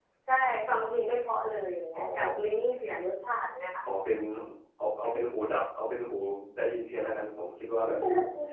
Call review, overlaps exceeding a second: none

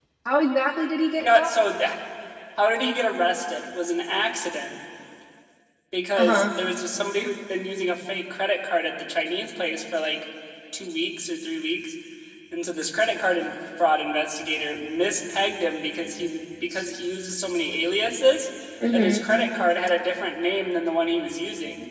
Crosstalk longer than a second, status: none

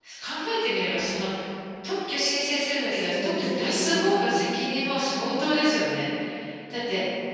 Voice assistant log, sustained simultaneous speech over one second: present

